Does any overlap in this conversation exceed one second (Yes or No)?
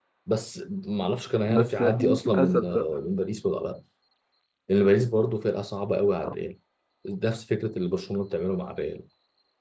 Yes